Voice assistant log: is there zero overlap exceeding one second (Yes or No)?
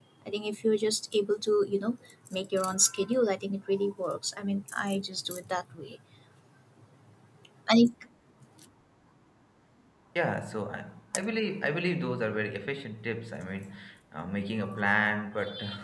Yes